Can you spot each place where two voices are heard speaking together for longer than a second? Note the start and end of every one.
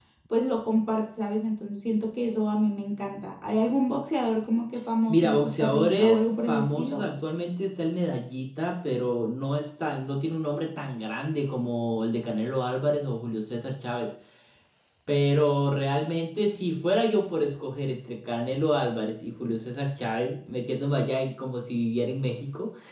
5.1-7.1

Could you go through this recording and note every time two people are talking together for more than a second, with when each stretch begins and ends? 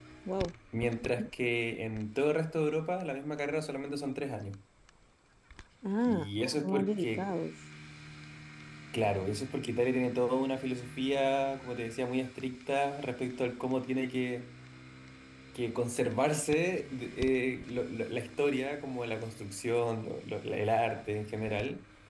6.0-7.3

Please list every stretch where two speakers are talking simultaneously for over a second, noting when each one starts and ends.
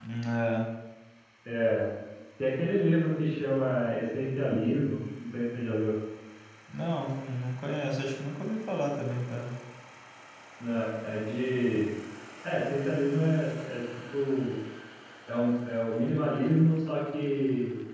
none

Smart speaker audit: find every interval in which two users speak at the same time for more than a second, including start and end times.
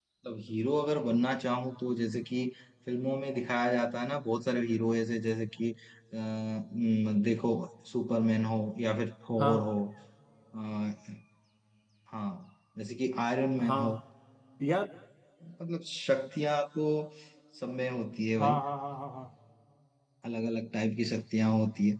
none

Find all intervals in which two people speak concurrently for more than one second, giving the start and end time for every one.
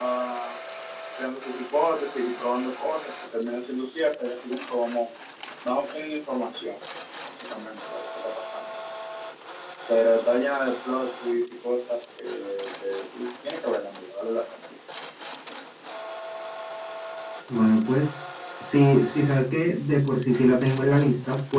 none

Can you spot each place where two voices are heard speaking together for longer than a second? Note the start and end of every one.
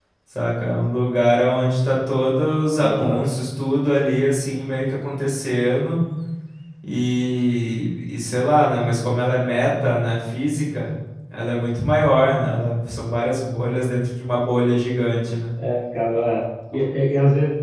none

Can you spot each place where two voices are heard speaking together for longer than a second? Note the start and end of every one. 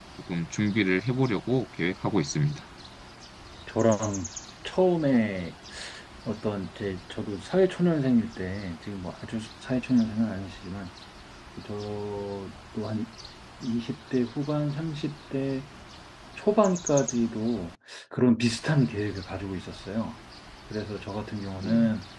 none

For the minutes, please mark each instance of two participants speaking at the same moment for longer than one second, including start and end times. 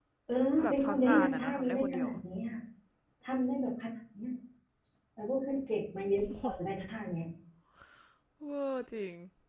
0.6-2.1

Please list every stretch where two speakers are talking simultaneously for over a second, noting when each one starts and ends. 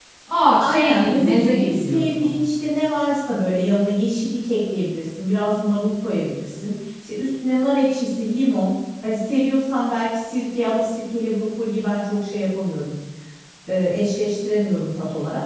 0.6-2.4

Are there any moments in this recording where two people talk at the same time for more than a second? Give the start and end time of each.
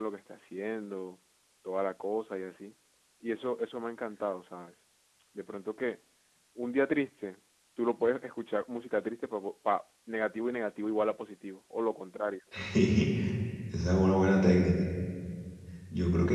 none

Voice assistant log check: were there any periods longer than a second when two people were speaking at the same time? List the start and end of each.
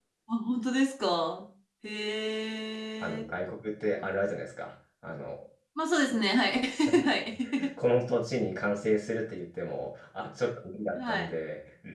none

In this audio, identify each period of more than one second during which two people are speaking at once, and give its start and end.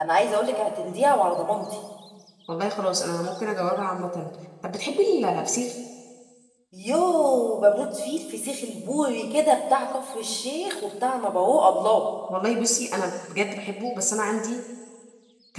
none

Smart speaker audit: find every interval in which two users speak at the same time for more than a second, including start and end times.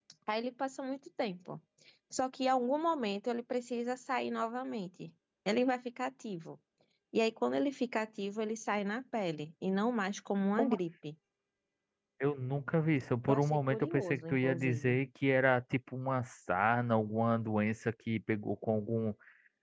13.3-15.0

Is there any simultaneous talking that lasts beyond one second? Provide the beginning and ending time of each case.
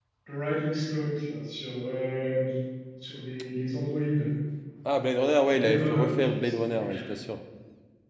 5.4-7.1

